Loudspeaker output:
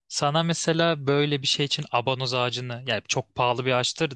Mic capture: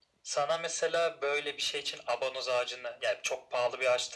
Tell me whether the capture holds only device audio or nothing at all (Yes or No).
Yes